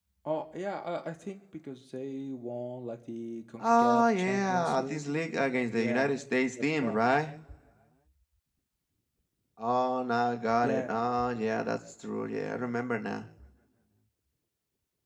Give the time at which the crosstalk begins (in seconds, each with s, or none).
3.6 s